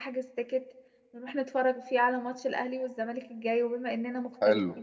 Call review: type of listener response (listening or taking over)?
listening